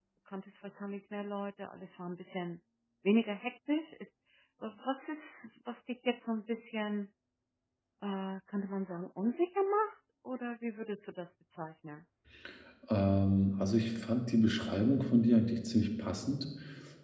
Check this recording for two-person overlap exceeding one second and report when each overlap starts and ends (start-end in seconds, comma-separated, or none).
none